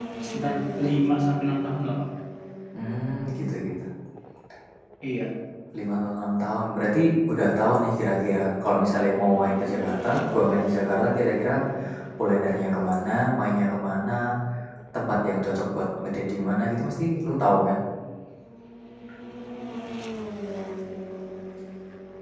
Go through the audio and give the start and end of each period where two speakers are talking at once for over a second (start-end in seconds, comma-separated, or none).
none